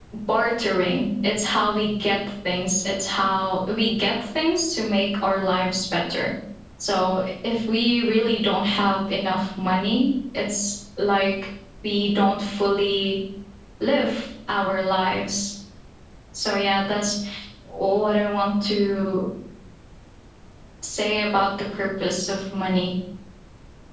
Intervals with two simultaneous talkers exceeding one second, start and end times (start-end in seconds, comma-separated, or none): none